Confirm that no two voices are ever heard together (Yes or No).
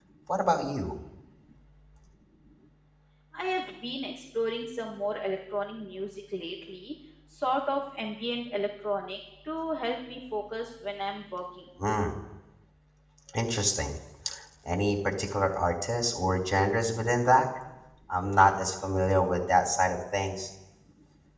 Yes